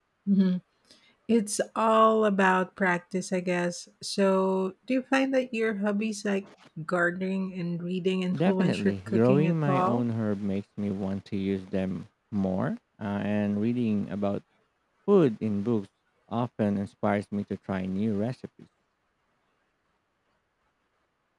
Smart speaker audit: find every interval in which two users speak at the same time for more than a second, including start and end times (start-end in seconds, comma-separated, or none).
8.4-10.0